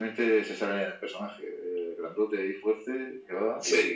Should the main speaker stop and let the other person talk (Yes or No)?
No